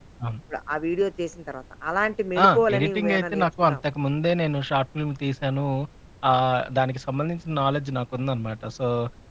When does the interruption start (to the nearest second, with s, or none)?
2 s